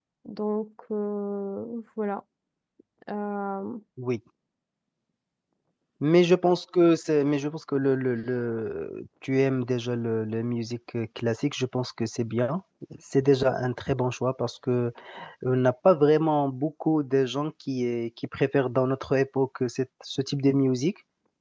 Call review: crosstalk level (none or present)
none